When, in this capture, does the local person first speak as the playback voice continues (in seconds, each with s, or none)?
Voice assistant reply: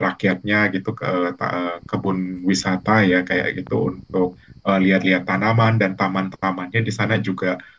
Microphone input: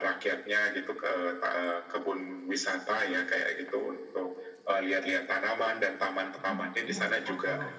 6.3 s